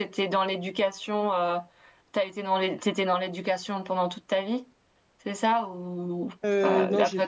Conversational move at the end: taking over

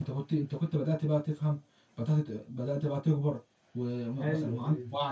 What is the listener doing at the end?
listening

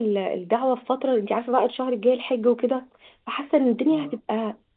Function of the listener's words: listening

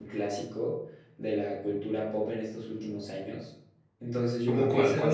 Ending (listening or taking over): taking over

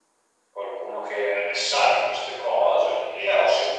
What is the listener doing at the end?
listening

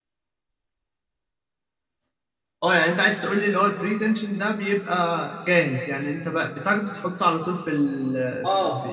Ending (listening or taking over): taking over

